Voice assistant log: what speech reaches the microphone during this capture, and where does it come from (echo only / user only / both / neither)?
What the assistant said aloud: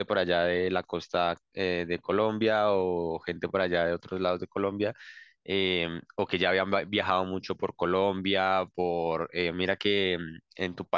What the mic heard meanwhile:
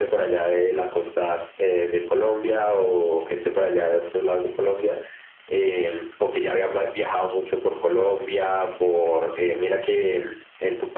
echo only